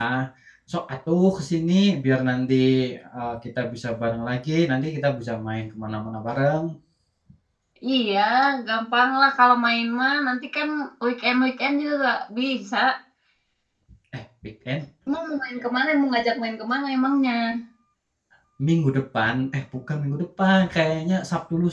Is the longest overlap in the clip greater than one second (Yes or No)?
No